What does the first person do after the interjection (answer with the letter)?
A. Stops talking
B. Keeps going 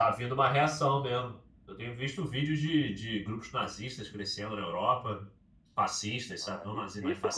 A